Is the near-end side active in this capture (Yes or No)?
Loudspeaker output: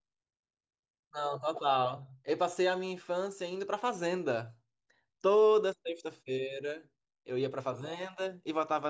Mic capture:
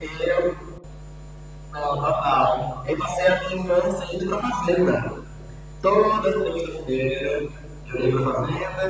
No